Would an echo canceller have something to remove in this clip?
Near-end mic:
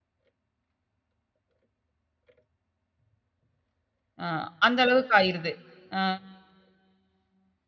No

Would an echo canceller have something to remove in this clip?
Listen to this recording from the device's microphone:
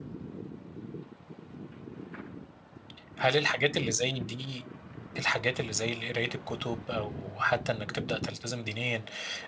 No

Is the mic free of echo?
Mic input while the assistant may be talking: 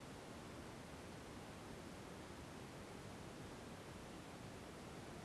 Yes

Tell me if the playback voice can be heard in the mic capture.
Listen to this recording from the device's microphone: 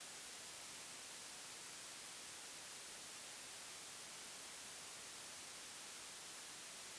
No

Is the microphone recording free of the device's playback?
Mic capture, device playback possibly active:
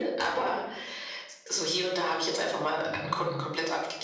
No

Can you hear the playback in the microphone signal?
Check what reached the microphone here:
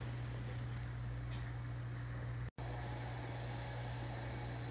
No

